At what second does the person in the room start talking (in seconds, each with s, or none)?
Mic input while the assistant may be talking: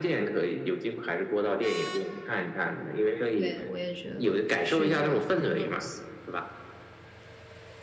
3.3 s